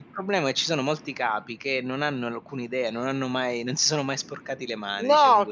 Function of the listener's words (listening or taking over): taking over